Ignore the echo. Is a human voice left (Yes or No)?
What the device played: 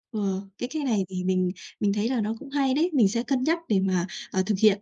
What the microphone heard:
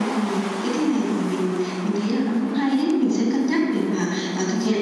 No